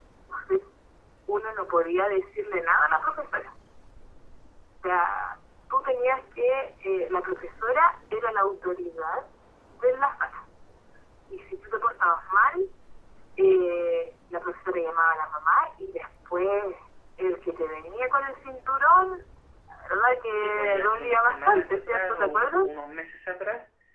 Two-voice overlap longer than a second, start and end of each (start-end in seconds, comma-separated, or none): 20.3-22.7